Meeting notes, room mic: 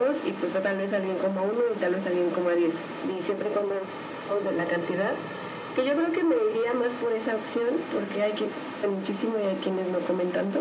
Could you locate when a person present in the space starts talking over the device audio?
none

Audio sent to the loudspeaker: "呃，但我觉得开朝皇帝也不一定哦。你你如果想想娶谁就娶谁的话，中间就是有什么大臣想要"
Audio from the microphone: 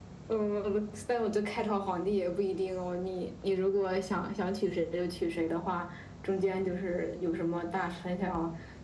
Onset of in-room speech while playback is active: none

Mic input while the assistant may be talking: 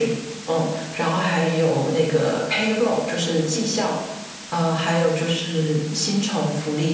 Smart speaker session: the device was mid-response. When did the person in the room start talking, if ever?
none

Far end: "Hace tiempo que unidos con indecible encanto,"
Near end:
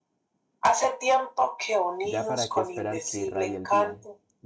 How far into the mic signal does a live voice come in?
2.0 s

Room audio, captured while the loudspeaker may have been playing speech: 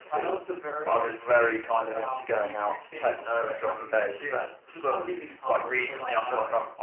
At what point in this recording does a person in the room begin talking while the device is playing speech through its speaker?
none

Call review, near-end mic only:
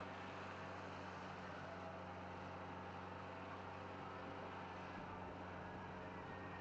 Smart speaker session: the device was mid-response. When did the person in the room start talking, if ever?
none

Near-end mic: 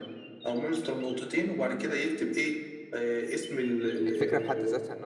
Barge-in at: 4.1 s

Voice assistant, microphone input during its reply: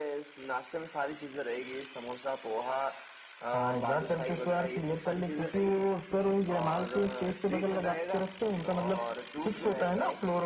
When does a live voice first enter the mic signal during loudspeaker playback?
none

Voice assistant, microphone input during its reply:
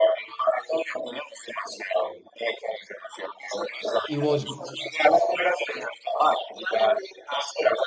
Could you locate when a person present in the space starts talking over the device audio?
4.0 s

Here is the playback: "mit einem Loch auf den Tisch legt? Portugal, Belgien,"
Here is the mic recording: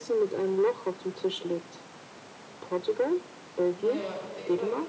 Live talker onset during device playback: 3.8 s

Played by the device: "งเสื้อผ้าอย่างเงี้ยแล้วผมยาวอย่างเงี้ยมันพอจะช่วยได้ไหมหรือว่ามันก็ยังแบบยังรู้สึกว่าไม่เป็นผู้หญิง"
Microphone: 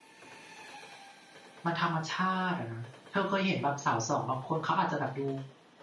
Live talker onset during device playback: 1.6 s

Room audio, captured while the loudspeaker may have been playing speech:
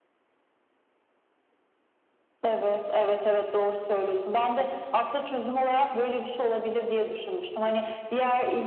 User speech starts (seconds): none

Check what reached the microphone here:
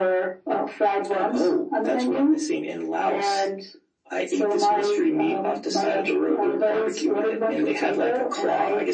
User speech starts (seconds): none

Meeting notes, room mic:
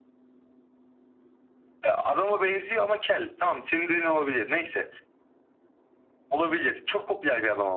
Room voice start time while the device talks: none

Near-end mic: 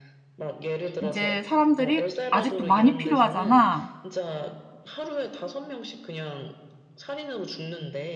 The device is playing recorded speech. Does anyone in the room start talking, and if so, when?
1.0 s

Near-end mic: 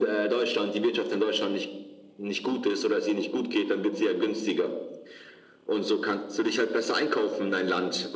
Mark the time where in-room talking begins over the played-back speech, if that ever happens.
none

